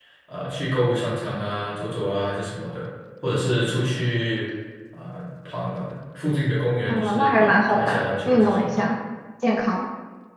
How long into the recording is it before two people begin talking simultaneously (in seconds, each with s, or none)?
6.9 s